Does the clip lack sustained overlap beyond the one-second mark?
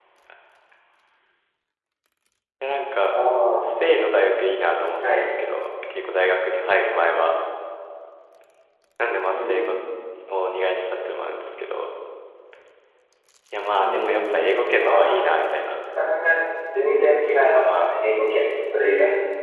No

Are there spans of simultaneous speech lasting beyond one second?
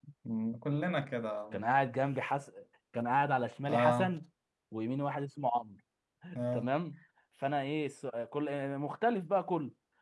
No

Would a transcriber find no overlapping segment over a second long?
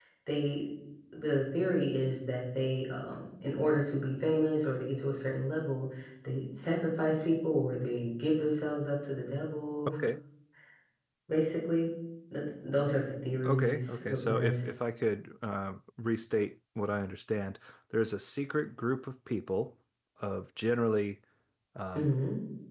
No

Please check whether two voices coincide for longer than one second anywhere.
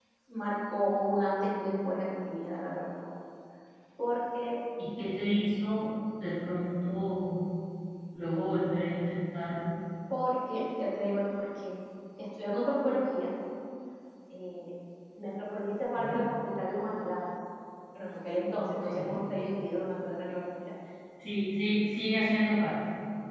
No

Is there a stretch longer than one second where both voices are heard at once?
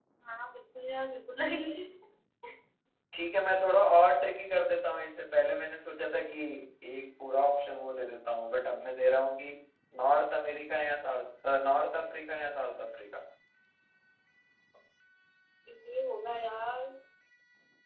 No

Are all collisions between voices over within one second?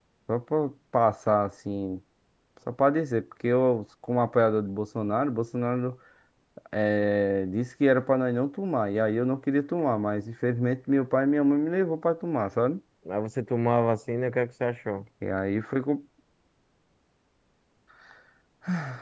Yes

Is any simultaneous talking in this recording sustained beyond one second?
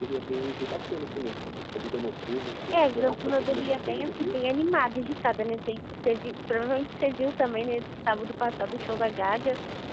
Yes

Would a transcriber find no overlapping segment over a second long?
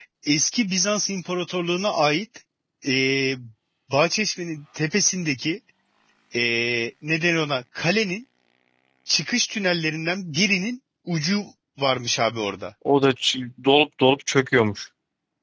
Yes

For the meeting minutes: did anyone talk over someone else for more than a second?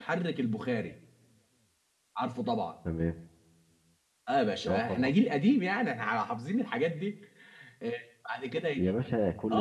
No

